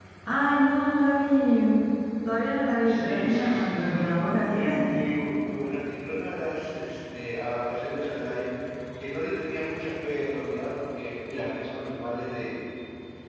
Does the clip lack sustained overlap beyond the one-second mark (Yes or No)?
No